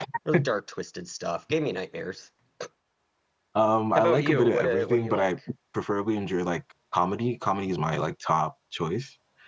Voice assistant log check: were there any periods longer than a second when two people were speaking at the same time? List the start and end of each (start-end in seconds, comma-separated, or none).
4.0-5.3